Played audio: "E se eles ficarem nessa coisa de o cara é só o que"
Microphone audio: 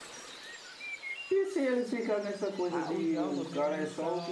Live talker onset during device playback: 2.6 s

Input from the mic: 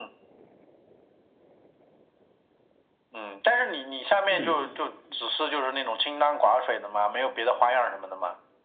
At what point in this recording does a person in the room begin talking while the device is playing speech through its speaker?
4.3 s

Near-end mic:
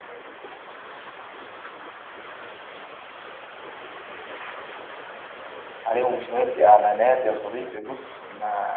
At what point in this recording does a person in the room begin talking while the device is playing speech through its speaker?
5.8 s

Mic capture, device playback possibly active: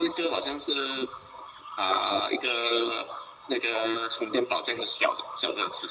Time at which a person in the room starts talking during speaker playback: none

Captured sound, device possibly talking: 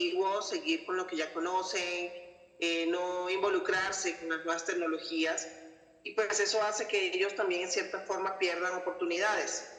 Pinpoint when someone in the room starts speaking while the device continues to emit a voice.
none

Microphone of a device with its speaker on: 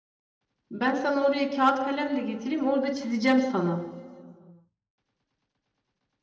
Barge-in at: 0.7 s

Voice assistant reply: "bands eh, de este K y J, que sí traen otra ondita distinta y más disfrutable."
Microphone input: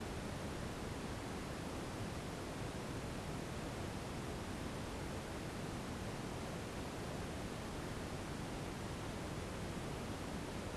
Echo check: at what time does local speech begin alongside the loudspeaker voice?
none

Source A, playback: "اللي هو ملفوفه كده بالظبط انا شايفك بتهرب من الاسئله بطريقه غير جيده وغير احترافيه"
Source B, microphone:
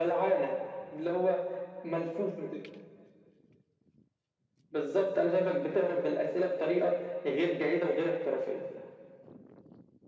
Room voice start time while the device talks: none

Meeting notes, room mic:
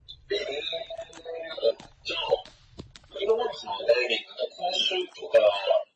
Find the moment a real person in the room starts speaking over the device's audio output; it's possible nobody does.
none

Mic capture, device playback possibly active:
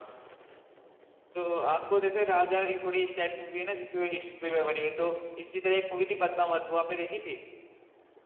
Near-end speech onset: none

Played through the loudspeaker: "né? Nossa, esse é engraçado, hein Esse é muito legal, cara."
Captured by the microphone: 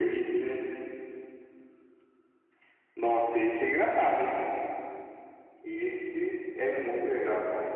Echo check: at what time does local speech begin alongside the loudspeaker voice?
none

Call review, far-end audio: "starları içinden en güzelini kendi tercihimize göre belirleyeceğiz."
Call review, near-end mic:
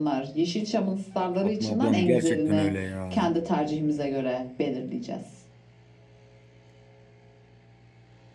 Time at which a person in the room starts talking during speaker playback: 1.4 s

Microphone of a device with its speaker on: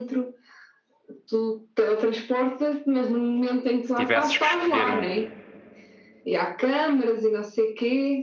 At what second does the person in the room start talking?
3.8 s

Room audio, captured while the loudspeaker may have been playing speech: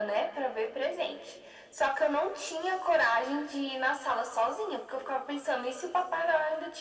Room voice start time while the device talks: none

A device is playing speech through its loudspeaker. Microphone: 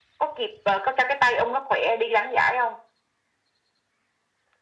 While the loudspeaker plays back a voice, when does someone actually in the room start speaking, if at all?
none

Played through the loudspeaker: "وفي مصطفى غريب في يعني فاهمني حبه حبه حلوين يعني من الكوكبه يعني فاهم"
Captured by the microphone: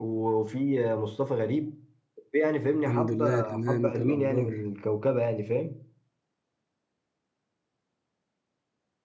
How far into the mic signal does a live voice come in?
2.9 s

